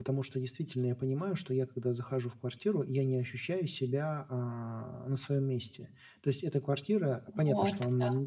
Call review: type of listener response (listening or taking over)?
listening